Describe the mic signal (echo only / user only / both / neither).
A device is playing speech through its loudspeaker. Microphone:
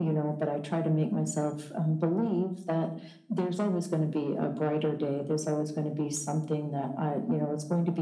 echo only